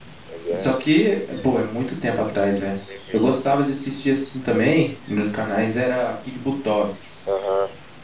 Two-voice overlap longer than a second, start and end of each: none

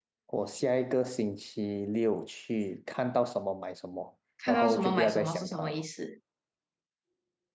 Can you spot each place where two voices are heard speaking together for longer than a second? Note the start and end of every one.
4.5-5.8

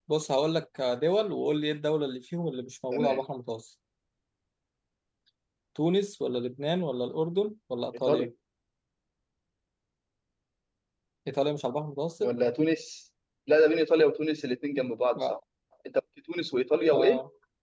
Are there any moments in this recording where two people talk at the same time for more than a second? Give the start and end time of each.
none

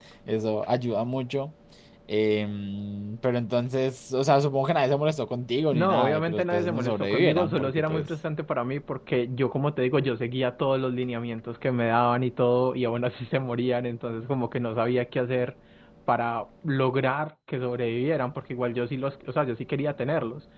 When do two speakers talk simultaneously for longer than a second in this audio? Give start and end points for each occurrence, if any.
5.7-8.1

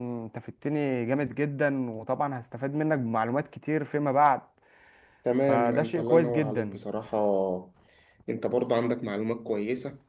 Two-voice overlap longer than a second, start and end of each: 5.5-6.8

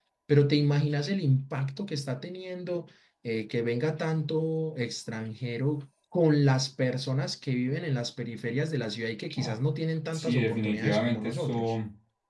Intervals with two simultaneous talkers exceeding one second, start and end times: 10.1-11.7

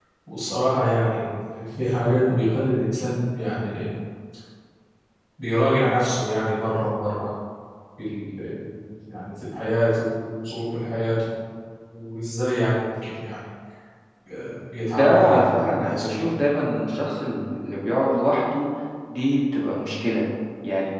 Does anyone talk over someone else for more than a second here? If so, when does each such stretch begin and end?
14.8-16.3

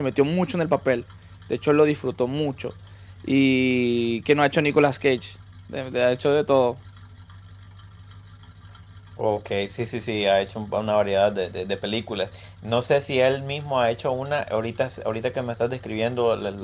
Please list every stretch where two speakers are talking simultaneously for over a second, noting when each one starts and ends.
none

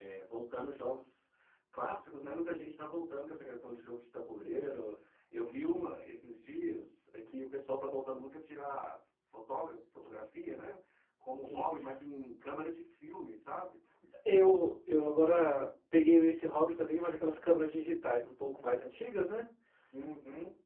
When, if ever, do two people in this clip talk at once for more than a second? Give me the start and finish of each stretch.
none

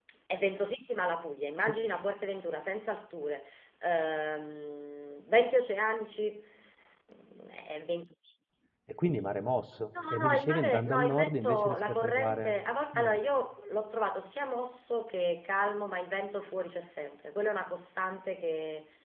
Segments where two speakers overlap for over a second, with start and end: 10.1-12.5

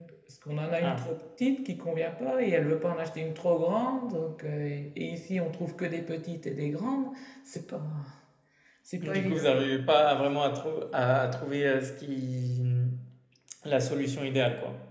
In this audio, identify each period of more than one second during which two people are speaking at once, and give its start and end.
none

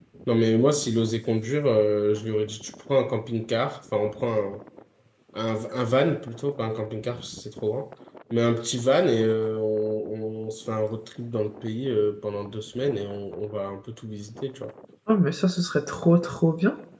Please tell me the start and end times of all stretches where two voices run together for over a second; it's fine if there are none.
none

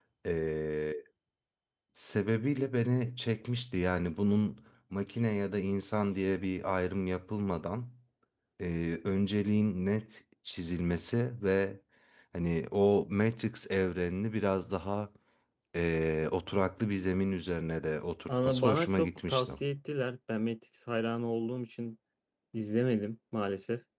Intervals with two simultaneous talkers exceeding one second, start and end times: 18.3-19.5

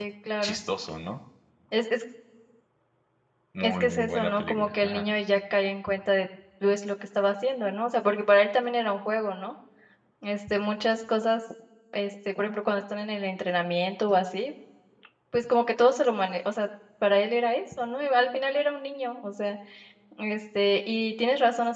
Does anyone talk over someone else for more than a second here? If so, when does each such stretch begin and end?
3.6-5.0

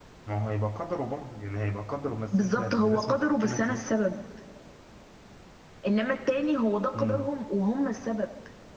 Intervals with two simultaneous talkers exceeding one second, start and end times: 2.3-3.8

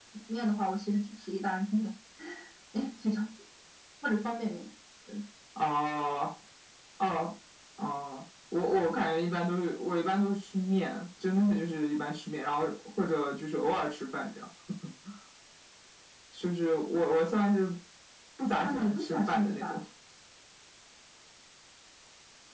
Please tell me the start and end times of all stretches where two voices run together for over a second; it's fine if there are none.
18.6-19.8

